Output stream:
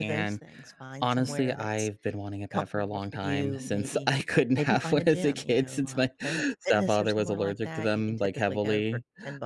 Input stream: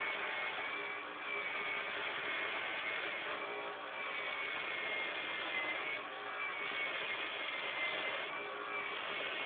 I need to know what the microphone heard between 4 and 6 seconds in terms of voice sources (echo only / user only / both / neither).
neither